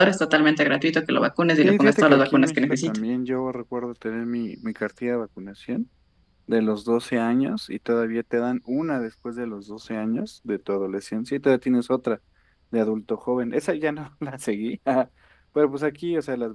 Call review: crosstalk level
present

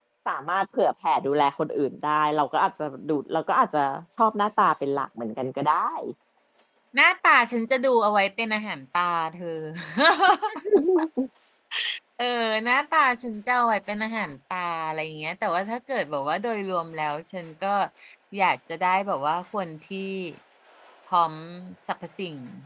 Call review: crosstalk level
none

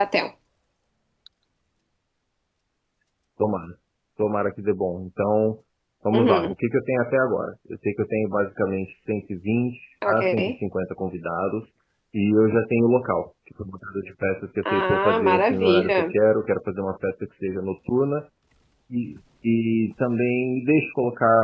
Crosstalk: present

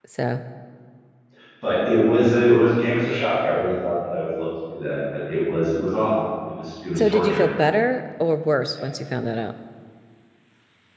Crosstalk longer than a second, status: none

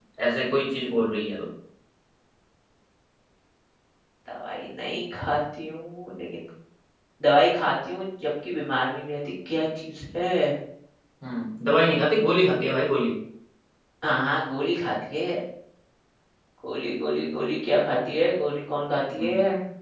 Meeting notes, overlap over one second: none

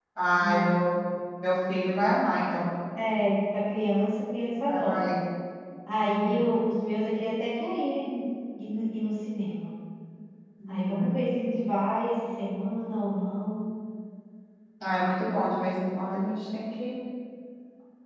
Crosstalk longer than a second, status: none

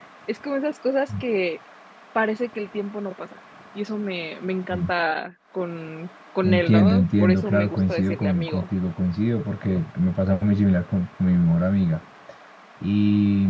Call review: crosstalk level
present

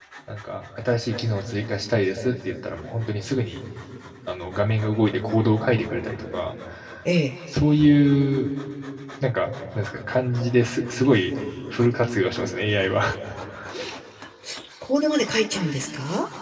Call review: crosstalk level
none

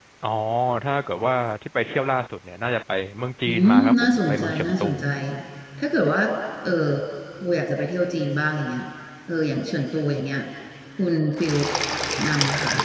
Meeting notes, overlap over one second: present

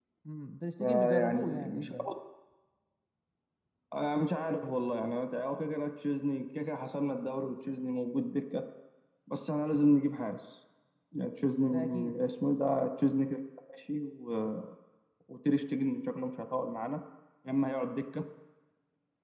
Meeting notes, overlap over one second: present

